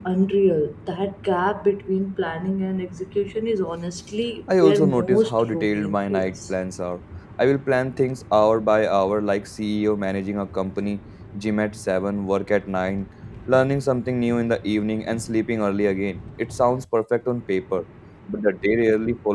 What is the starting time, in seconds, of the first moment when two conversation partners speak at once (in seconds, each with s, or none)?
4.5 s